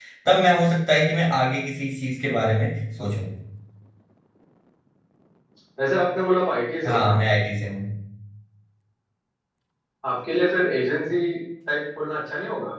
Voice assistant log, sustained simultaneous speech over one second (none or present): none